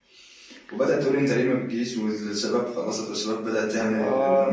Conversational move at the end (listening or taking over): listening